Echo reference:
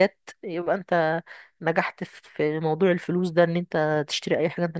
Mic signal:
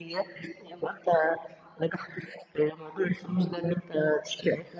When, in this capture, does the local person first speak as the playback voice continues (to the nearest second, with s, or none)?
none